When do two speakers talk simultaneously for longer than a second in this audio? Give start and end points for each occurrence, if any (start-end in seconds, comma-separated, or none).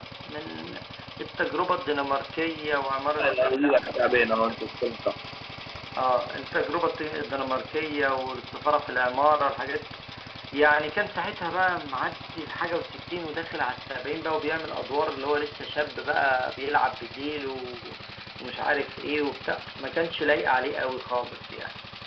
3.2-4.7